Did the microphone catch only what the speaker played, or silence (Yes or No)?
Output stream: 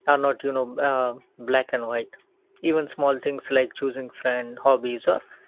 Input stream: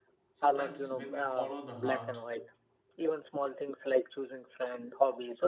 No